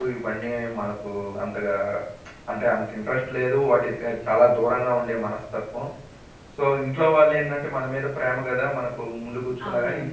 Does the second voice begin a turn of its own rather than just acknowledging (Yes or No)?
Yes